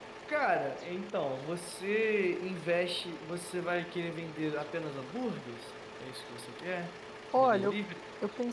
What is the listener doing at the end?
taking over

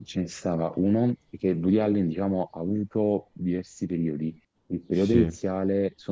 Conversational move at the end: listening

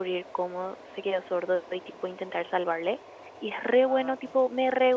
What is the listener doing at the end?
listening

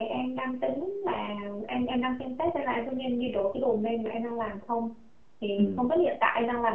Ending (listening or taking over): listening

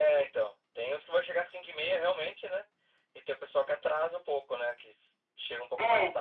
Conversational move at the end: listening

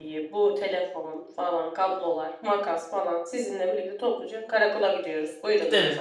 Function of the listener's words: taking over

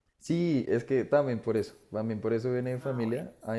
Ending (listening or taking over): listening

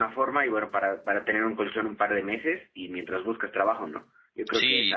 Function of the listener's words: listening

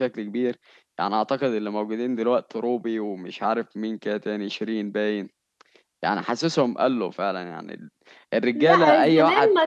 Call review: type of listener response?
taking over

